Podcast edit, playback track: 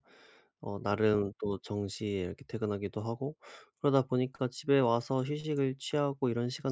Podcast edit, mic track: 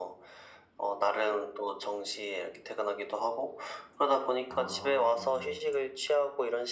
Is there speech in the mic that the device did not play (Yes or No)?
Yes